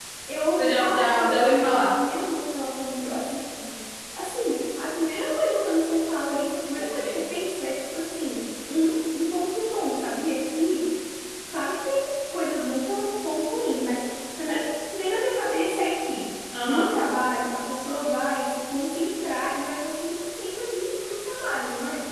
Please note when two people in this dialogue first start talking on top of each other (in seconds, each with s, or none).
0.6 s